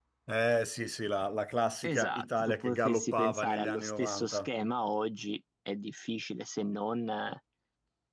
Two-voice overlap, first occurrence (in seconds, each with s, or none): 1.8 s